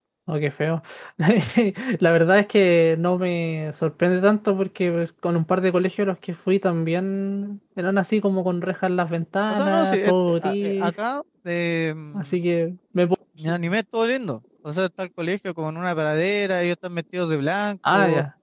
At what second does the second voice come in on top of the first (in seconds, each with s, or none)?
9.5 s